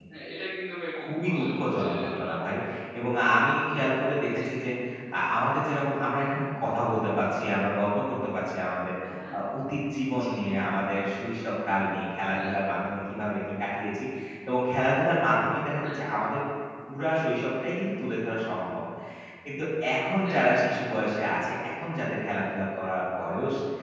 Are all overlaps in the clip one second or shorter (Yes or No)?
No